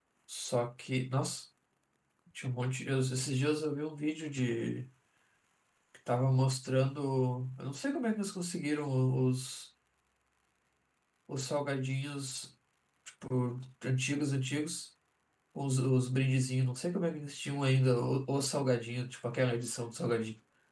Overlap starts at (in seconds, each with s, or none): none